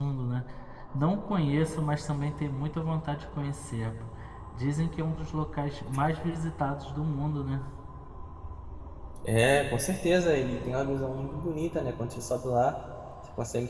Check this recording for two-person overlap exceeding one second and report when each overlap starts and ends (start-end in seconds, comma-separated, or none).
none